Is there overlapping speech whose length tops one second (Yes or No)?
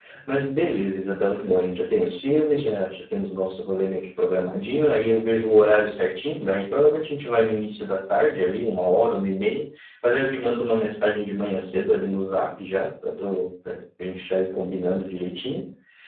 No